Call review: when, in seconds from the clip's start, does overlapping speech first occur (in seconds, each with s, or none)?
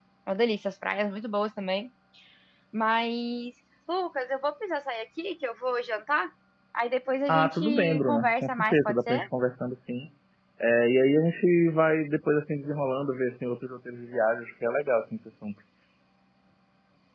7.3 s